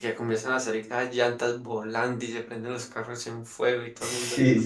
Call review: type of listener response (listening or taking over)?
taking over